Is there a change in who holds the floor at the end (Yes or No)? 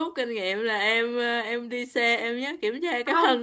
No